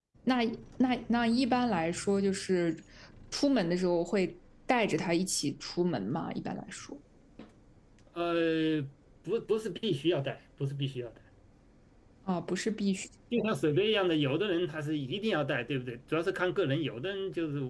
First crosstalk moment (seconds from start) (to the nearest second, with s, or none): none